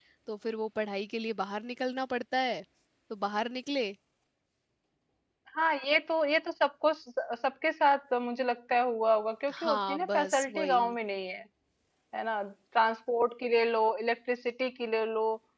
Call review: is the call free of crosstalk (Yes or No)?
No